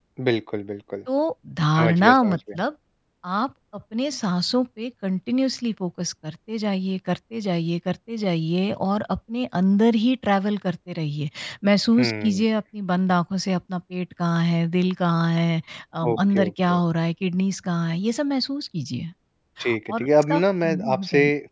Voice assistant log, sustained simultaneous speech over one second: present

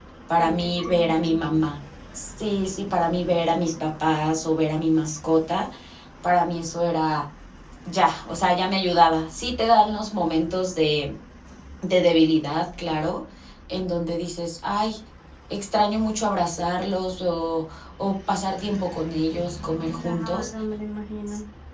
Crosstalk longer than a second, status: present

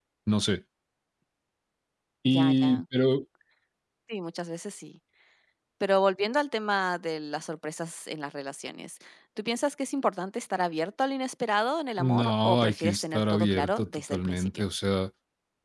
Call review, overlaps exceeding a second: present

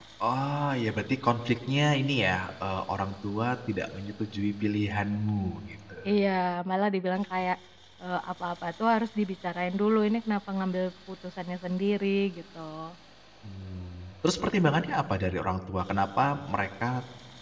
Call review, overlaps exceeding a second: none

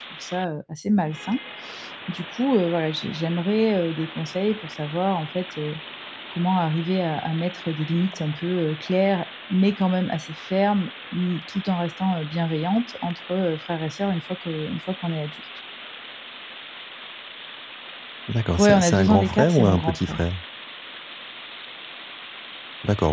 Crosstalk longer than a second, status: present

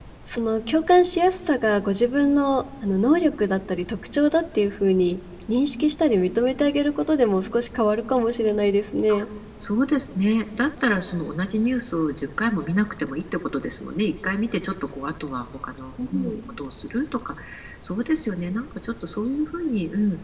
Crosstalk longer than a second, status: none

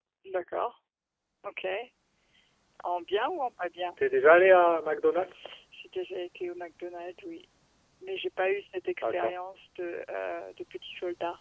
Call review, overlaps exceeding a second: none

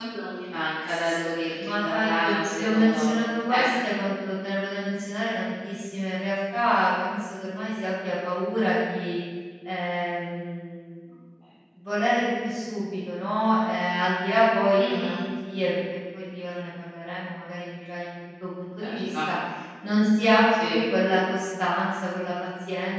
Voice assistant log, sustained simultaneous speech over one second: present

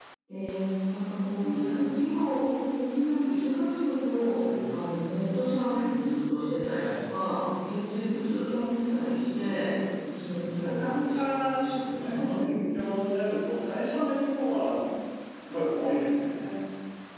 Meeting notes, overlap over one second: present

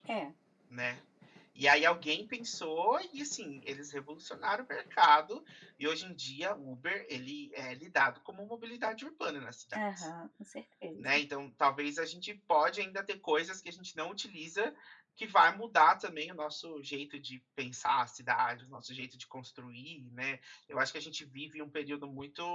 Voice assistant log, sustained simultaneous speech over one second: none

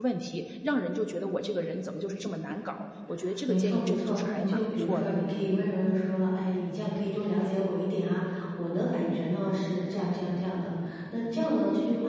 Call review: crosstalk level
present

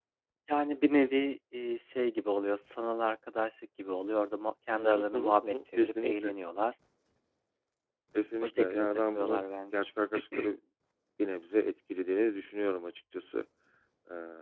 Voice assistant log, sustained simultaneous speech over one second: present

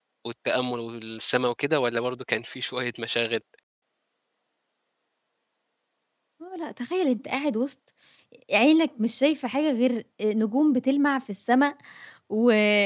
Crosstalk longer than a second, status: none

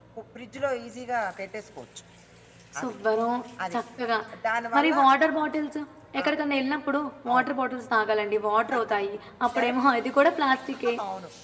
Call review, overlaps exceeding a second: none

